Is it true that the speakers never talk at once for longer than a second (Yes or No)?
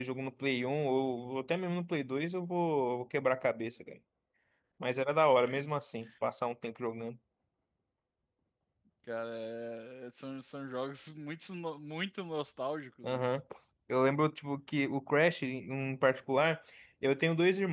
Yes